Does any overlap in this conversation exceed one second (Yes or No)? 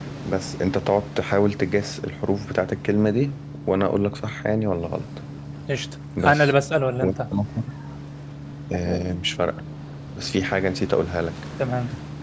No